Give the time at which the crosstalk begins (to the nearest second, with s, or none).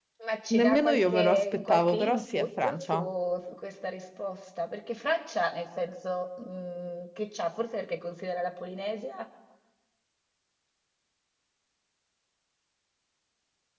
1 s